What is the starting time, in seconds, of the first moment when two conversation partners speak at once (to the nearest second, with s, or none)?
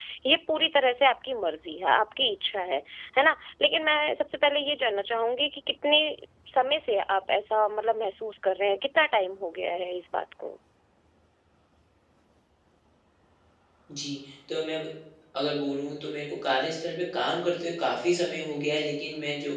none